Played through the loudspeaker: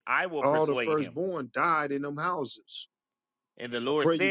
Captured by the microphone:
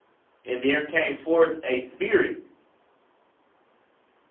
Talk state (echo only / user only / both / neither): user only